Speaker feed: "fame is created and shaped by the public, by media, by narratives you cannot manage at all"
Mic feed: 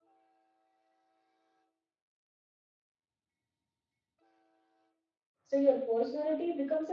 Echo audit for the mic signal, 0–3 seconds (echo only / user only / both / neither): neither